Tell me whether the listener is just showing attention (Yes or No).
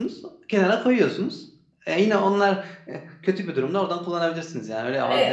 No